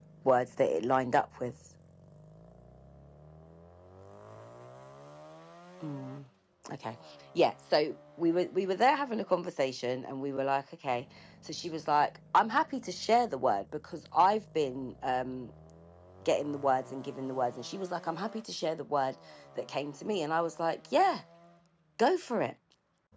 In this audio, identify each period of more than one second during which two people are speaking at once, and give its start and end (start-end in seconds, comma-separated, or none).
none